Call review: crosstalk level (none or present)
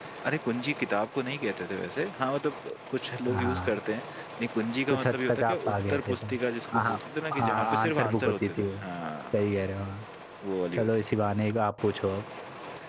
present